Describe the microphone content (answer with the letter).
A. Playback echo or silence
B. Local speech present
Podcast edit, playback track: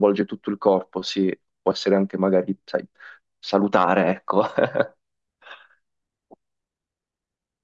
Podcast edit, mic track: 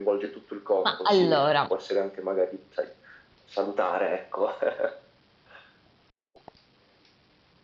B